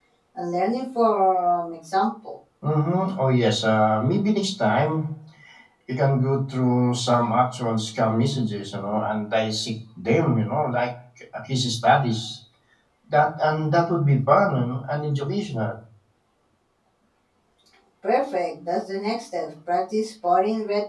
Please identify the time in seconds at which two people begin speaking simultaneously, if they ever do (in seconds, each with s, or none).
none